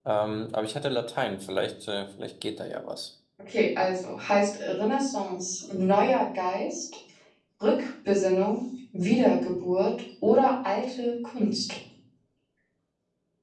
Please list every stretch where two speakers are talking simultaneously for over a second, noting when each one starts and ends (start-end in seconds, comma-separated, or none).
none